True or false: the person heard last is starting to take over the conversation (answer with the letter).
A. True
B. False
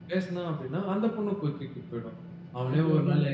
B